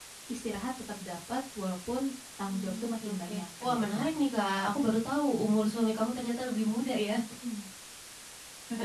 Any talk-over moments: Yes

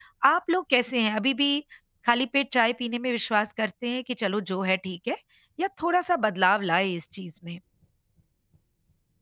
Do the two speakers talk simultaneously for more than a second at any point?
No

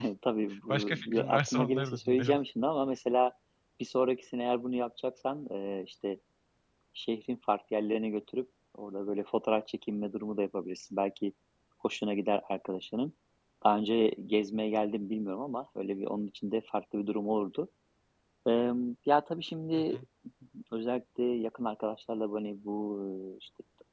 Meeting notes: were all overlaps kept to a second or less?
No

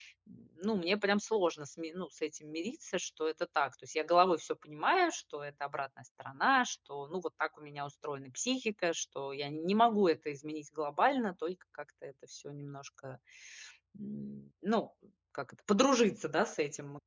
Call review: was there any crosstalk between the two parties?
No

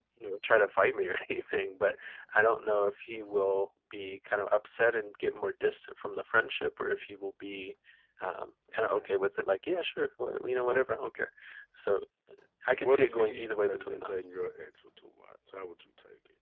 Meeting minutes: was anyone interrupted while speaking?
Yes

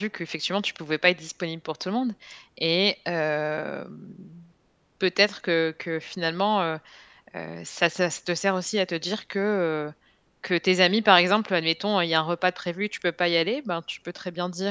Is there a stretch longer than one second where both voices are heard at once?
No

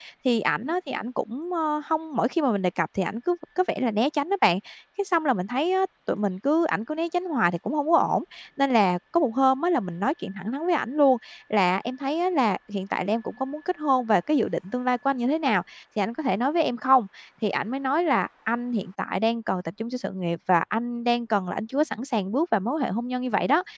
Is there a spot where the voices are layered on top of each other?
No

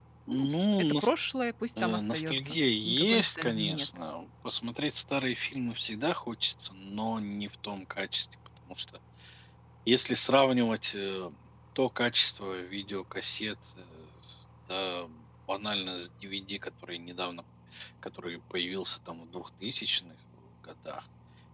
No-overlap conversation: No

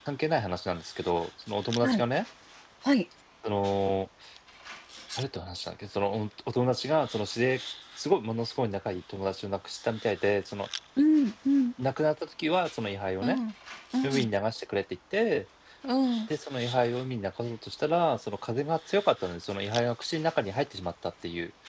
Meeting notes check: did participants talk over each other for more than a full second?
No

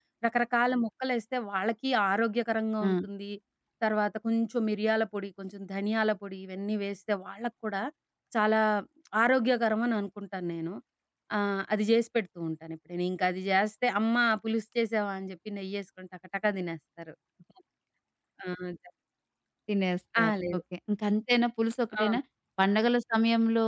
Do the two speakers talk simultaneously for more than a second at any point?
No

